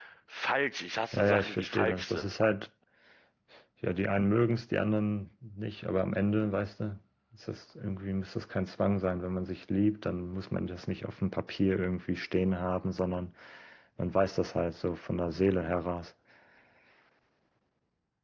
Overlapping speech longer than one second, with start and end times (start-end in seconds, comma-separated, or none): 1.1-2.4